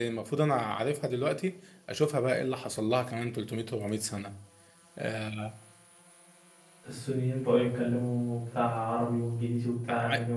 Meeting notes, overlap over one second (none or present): none